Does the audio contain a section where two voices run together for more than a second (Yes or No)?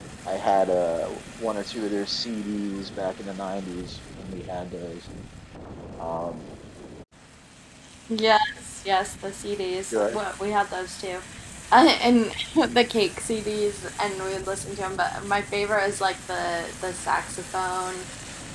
No